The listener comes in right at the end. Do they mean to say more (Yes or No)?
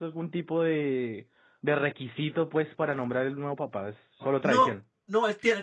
Yes